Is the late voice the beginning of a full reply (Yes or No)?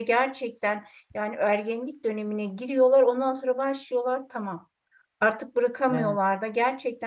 No